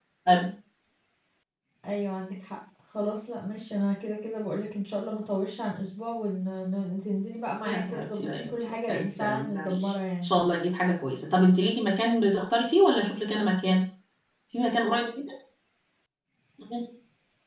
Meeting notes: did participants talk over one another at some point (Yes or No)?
Yes